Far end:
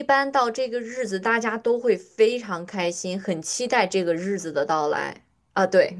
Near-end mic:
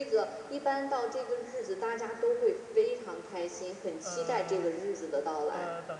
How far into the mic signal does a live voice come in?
4.0 s

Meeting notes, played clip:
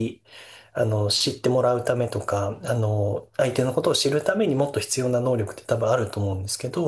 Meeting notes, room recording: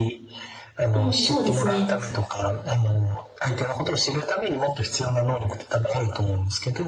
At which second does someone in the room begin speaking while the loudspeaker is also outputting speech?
0.9 s

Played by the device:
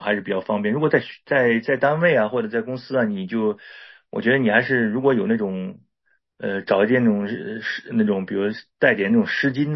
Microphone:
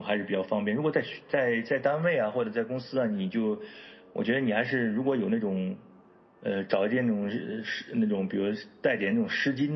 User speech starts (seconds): none

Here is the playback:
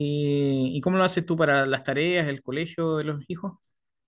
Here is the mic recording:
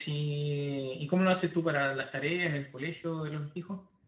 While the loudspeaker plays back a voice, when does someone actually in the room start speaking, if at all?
none

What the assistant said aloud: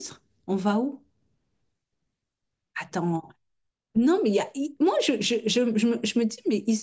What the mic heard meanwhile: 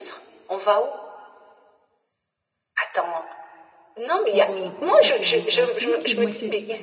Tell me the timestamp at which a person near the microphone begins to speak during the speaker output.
4.3 s

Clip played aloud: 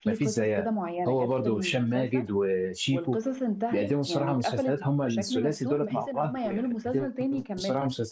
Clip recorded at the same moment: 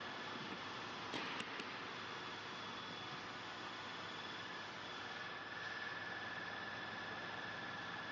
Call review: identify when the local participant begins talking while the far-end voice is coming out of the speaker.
none

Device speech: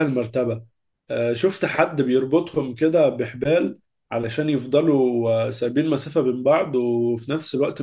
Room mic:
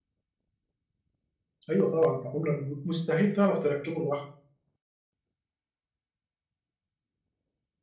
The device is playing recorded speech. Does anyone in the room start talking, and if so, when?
1.7 s

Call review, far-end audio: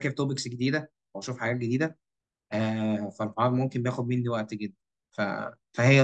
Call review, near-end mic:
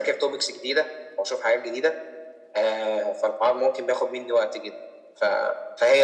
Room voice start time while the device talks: none

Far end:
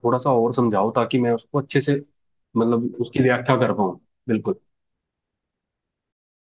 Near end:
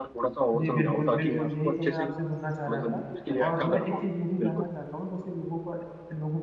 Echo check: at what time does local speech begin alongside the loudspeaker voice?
0.5 s

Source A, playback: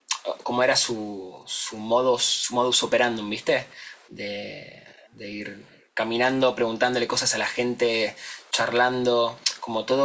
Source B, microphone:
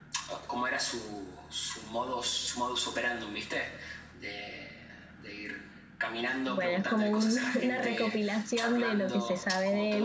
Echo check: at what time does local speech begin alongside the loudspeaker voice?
6.4 s

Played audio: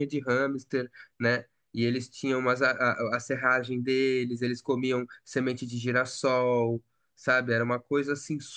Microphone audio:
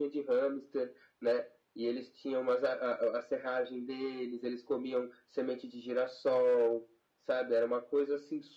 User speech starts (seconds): none

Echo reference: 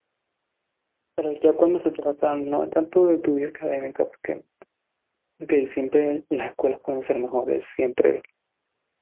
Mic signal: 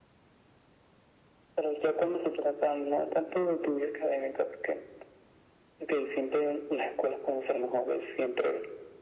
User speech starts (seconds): none

